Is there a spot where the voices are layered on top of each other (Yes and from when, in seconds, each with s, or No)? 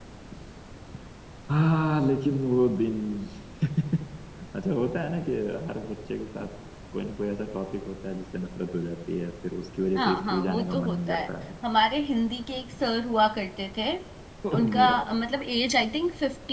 Yes, from 9.9 s